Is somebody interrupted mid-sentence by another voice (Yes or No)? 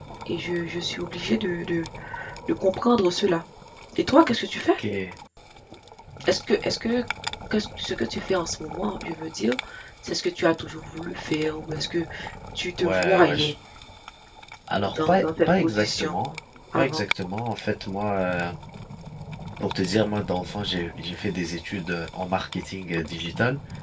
Yes